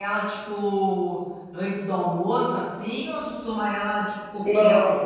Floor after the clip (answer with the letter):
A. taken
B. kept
A